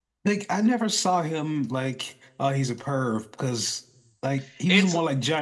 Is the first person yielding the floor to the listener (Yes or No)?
No